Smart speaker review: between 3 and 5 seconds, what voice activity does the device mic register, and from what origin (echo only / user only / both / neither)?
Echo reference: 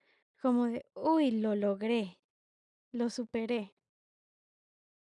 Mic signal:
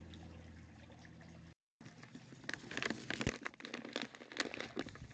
neither